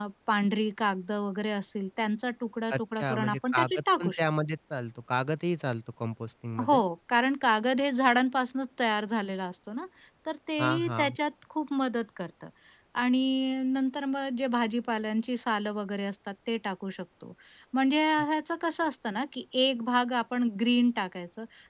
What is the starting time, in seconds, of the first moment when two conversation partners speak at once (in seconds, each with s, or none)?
2.7 s